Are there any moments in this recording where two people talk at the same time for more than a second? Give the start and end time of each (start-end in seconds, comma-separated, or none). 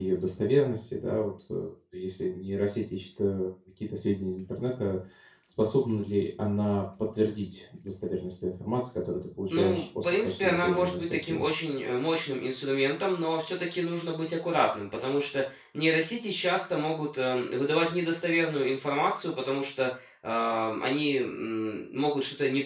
9.5-11.4